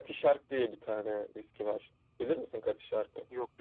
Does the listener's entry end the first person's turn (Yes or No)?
No